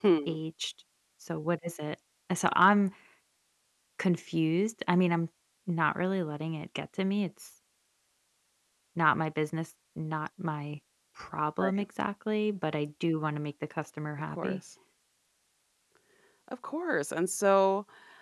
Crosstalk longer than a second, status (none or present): none